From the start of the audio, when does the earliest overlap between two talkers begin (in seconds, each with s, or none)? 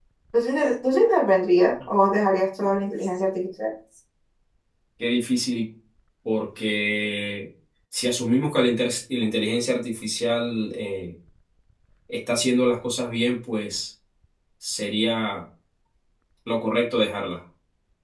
none